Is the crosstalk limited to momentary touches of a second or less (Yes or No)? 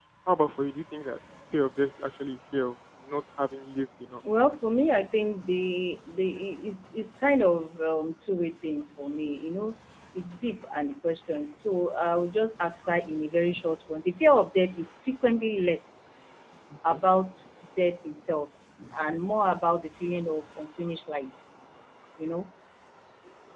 Yes